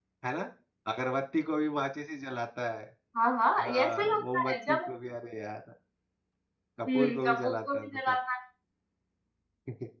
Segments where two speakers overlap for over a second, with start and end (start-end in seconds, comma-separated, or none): 3.6-4.9, 6.9-8.2